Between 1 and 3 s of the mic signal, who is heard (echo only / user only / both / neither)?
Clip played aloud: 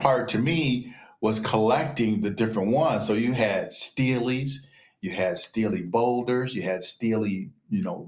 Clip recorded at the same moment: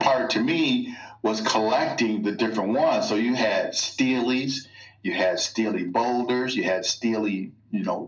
echo only